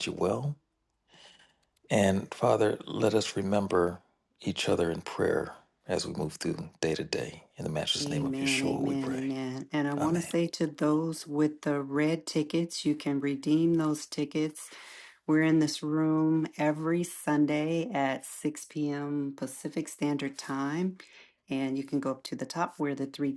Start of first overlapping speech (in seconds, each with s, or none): 8.0 s